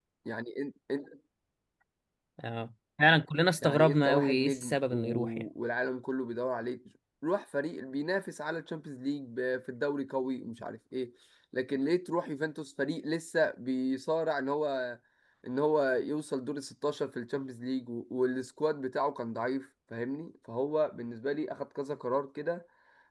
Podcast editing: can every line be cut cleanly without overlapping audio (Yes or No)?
No